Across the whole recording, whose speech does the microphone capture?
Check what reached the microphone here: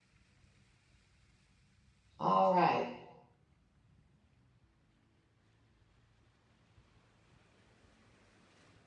user only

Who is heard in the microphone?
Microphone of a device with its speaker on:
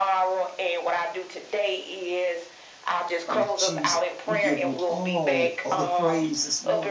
both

